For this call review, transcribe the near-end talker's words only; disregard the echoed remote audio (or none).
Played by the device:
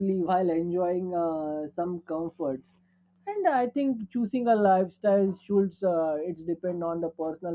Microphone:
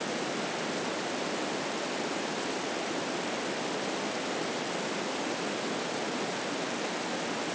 none